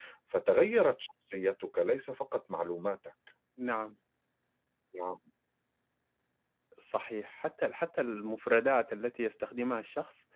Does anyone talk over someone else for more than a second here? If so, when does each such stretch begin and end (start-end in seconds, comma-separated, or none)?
none